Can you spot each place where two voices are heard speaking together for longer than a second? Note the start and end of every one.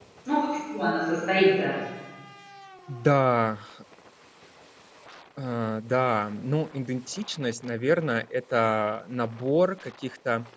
none

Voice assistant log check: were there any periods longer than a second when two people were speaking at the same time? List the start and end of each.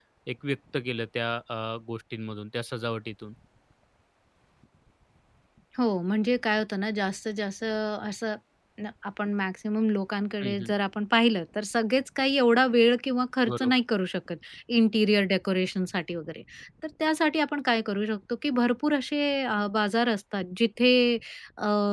none

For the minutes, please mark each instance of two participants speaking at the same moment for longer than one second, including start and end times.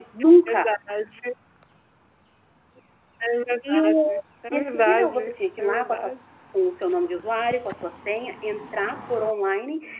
4.5-6.1

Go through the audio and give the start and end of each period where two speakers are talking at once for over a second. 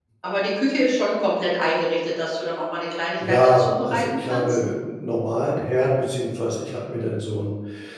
3.3-4.6

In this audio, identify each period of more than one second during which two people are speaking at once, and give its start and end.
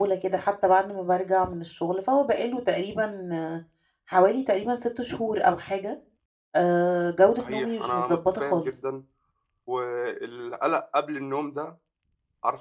7.4-8.7

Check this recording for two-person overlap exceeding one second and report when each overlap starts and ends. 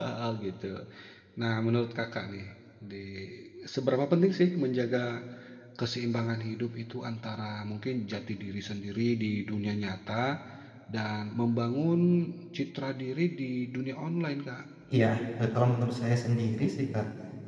none

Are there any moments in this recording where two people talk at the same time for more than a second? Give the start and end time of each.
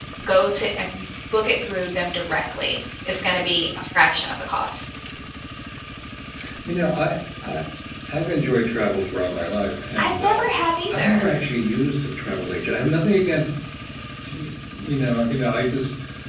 none

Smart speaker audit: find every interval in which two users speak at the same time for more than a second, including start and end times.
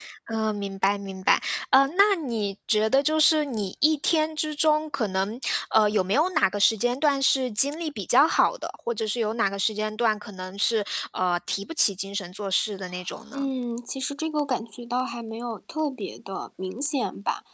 none

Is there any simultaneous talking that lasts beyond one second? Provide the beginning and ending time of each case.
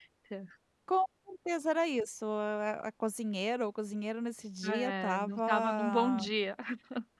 4.6-6.2

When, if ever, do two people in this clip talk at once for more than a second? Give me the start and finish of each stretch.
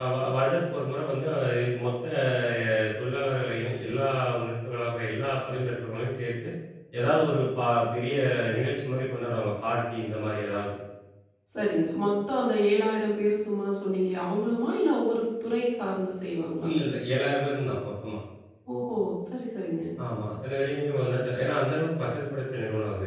none

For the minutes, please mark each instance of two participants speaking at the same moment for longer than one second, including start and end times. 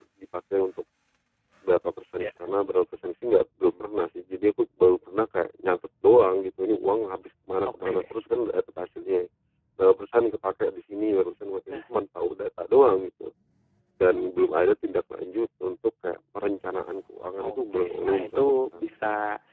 17.4-18.8

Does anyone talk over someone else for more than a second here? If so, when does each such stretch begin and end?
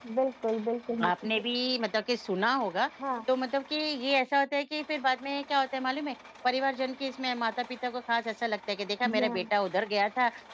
none

